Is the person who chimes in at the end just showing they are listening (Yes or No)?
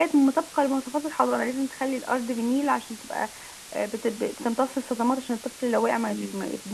Yes